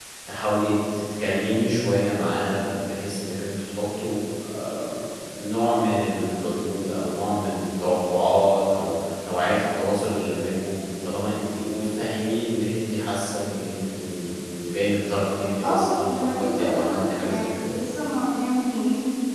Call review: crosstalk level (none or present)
present